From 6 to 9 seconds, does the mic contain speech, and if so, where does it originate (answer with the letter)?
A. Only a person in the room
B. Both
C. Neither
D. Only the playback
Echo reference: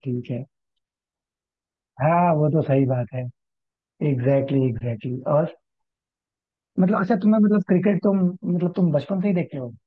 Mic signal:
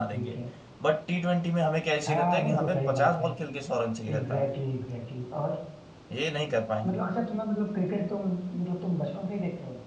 B